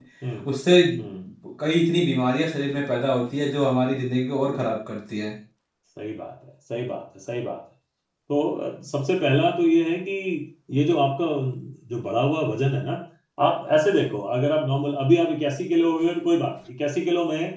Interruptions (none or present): none